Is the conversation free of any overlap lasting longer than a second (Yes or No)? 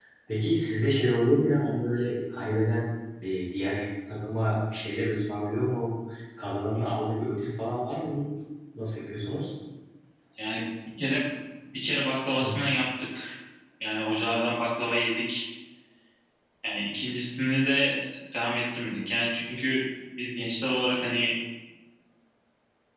Yes